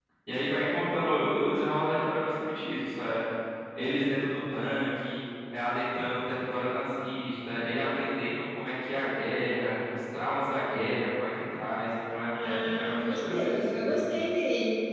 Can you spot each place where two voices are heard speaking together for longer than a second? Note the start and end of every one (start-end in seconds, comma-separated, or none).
12.4-14.0